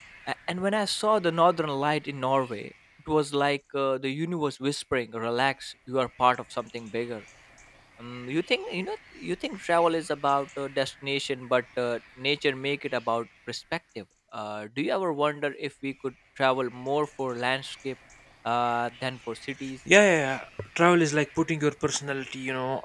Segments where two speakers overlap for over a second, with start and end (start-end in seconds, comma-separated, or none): none